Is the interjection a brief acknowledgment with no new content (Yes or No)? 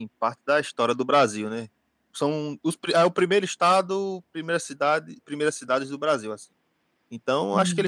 Yes